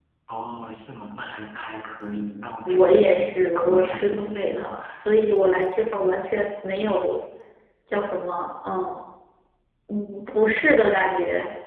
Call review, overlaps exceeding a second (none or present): present